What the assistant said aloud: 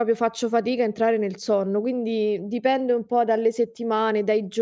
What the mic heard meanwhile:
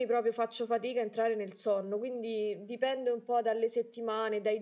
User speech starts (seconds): none

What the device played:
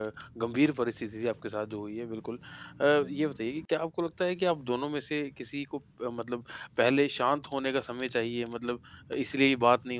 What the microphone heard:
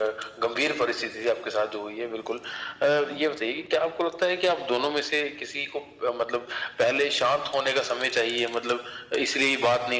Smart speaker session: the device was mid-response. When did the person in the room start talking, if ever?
none

